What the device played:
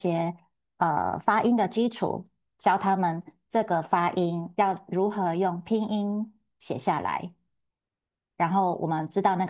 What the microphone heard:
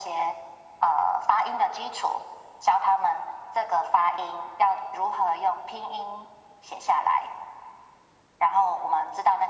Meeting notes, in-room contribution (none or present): none